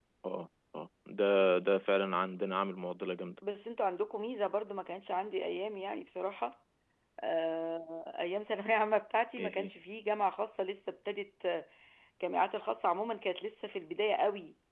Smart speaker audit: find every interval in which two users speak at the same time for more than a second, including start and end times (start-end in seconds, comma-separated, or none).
none